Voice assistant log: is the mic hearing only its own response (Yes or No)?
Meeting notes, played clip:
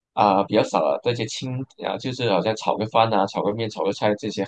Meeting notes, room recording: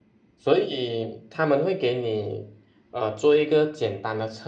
No